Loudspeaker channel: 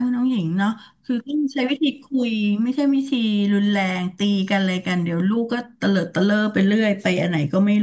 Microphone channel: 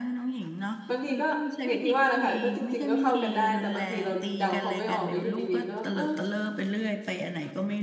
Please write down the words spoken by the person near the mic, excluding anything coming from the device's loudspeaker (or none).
บางทีก็อย่างที่ว่าแหละค่ะก็จริงๆก็เข้ากันได้แต่บางทีเราเดาเขาไม่ออกแล้วอยู่ดีๆก็เออ